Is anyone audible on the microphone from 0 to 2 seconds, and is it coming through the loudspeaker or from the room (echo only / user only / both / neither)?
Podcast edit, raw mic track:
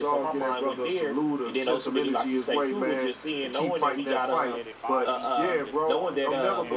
echo only